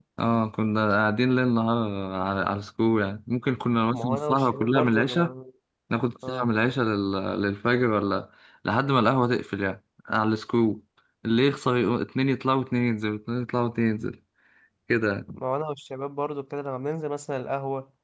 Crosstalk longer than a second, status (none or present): present